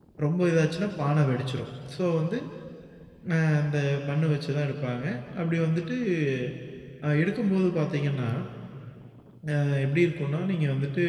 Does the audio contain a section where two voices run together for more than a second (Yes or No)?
No